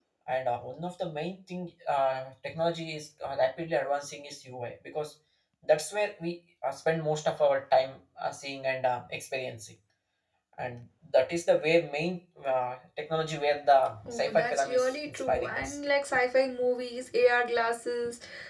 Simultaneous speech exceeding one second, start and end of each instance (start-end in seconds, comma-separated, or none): 14.1-15.8